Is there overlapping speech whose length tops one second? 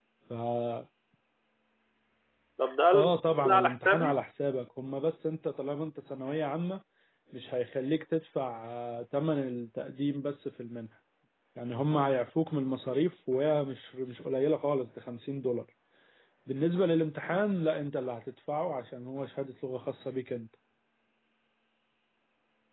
Yes, from 2.9 s

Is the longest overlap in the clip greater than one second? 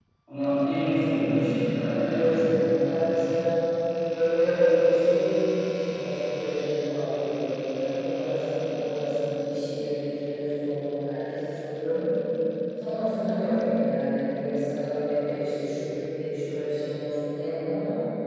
No

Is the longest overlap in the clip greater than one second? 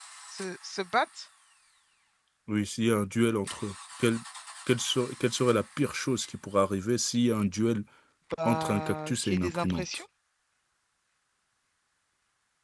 Yes, from 8.4 s

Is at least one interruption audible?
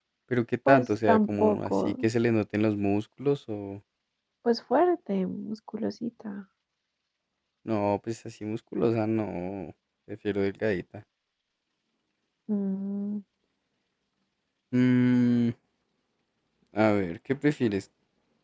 Yes, from 0.7 s

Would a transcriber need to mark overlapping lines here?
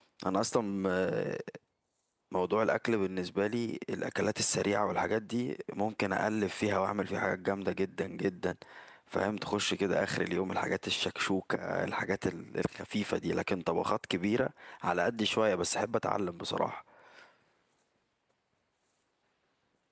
No

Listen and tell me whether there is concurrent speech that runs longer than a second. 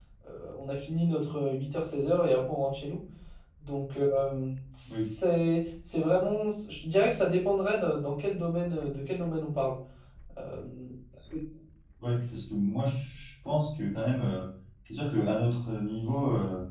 No

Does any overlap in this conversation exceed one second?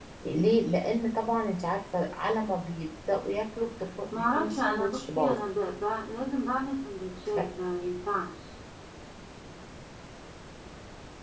Yes, from 4.1 s

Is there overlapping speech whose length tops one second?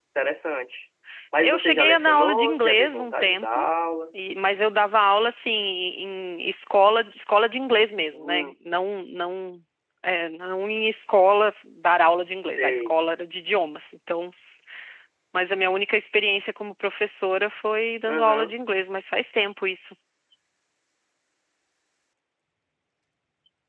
Yes, from 1.4 s

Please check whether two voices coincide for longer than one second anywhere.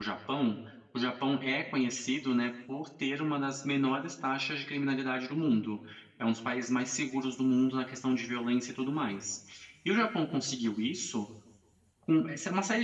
No

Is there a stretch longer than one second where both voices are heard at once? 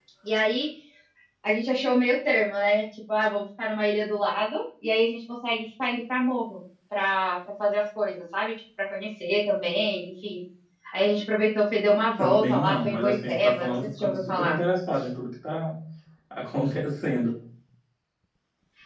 Yes, from 12.2 s

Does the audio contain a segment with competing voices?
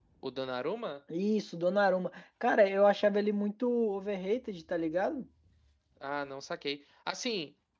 No

